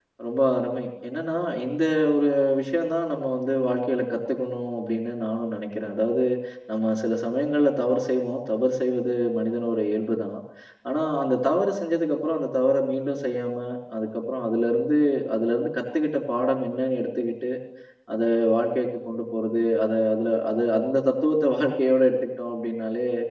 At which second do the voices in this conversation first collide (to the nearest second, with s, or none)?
none